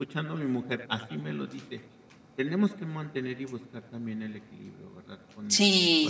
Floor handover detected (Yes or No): Yes